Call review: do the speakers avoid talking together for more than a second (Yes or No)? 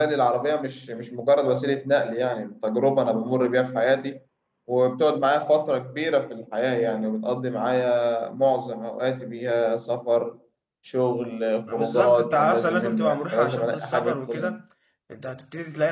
No